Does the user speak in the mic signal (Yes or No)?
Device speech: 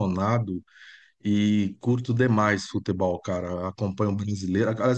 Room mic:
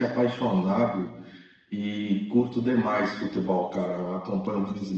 No